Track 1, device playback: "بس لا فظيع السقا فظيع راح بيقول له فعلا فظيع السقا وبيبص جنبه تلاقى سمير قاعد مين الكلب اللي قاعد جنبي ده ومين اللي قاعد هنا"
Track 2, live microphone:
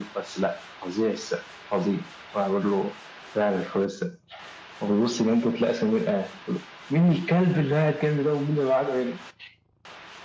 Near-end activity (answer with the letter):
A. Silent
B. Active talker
A